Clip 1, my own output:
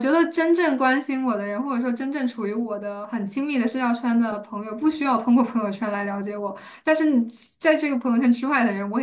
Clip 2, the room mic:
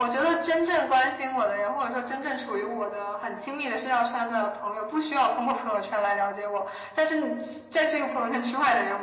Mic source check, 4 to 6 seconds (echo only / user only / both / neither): echo only